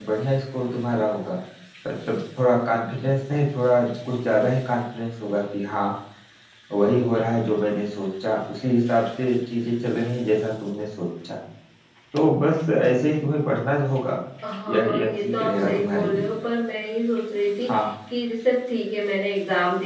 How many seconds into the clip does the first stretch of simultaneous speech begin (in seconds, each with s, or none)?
14.7 s